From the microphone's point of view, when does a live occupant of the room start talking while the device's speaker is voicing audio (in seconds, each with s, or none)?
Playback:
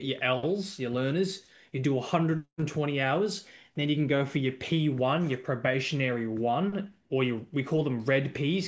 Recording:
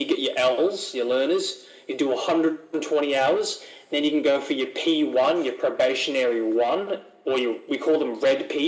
none